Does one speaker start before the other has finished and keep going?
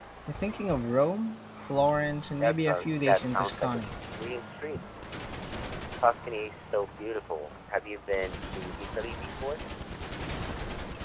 Yes, from 2.4 s

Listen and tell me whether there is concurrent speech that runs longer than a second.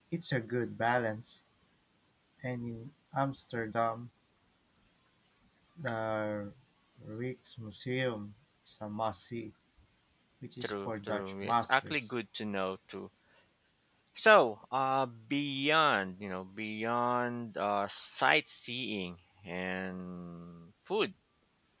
Yes, from 10.6 s

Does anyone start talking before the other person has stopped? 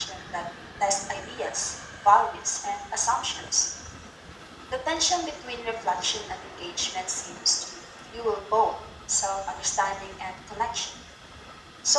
No

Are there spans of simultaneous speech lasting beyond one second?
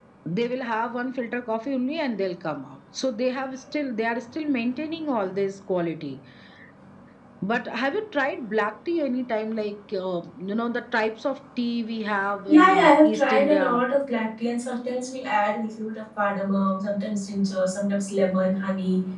Yes, from 12.5 s

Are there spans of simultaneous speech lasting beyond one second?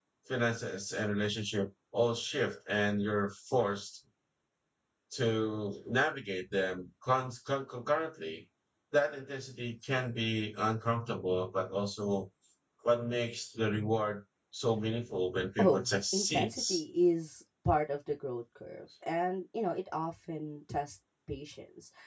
Yes, from 15.6 s

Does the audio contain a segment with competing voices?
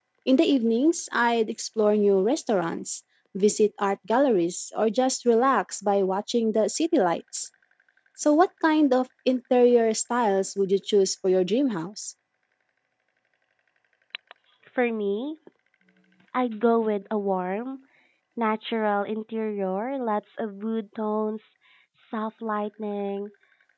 No

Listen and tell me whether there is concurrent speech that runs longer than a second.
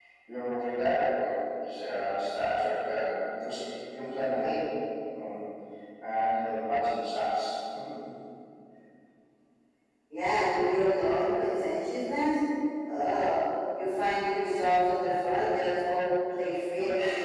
No

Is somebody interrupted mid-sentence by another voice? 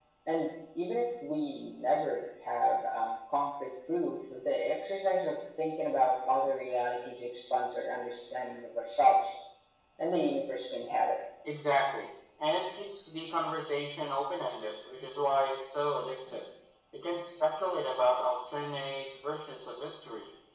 No

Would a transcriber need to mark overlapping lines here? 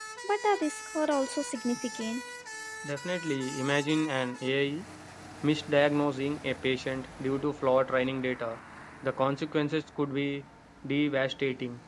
No

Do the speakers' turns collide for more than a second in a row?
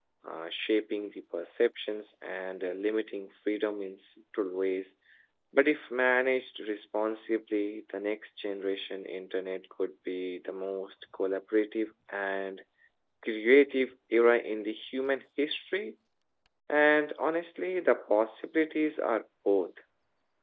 No

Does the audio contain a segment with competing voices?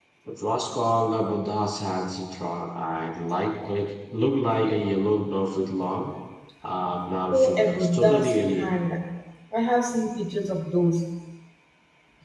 Yes, from 7.3 s

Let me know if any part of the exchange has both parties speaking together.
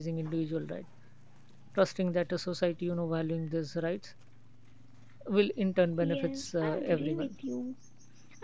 Yes, from 6.0 s

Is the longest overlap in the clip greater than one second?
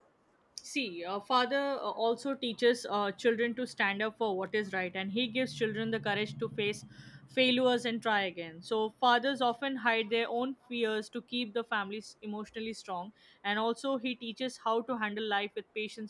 No

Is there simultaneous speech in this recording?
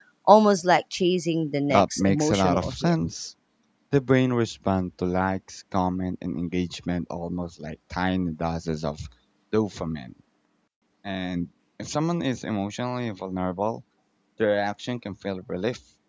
Yes, from 1.7 s

